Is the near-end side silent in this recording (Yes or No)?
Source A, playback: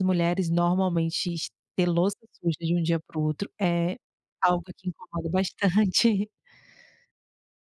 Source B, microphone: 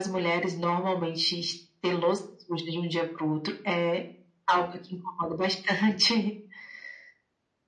Yes